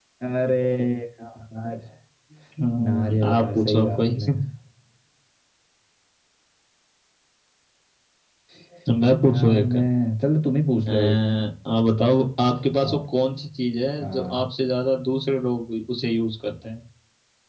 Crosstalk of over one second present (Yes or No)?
Yes